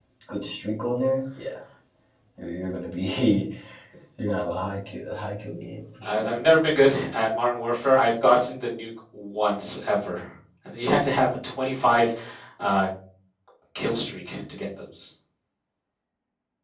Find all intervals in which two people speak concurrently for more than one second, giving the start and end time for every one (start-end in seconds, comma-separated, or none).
none